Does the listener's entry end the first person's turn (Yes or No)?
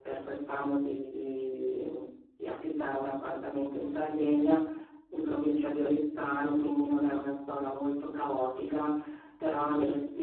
No